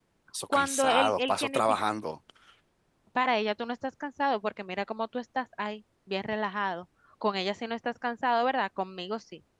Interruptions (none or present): present